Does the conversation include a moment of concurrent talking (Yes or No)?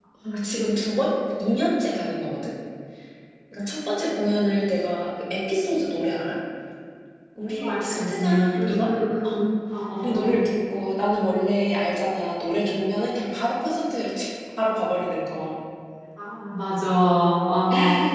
Yes